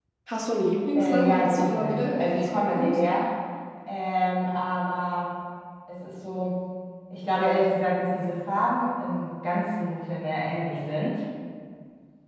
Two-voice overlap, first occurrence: 0.9 s

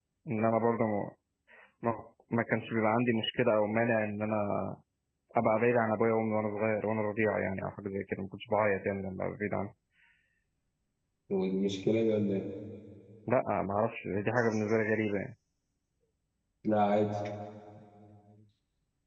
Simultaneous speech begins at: none

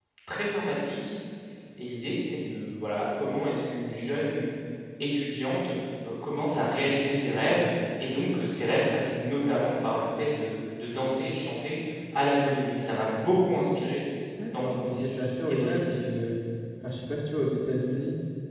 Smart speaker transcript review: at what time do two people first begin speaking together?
14.5 s

